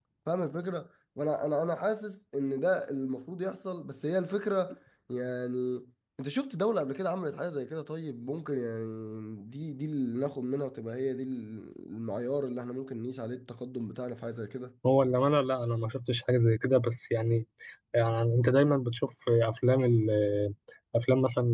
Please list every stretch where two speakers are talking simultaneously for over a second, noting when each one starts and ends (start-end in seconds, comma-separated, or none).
none